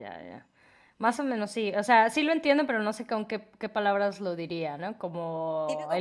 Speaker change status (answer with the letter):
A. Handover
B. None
A